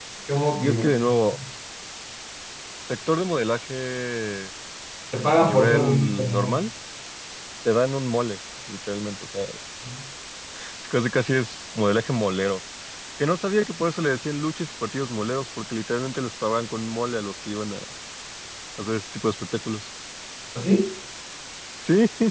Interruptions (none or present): present